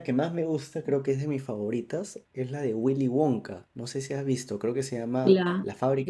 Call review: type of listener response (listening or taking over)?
taking over